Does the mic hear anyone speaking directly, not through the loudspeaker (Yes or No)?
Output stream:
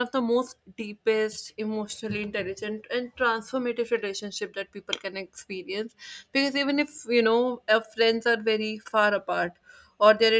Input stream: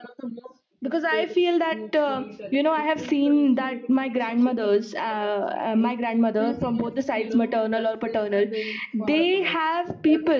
Yes